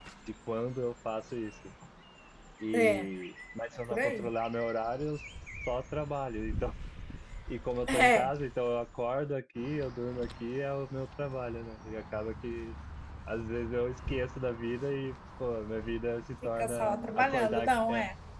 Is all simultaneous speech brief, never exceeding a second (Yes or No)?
No